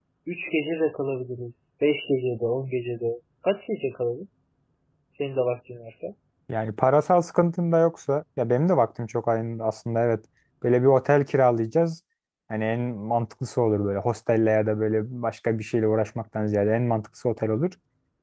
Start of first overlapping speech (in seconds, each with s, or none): none